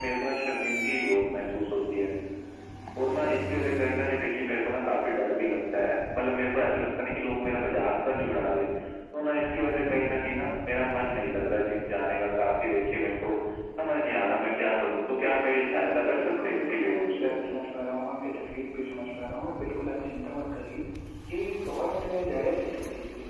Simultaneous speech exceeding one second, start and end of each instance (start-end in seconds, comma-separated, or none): 15.6-17.4